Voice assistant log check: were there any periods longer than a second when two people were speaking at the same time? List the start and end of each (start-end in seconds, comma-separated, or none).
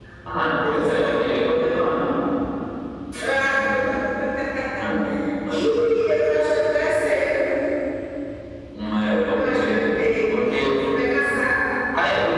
0.7-2.0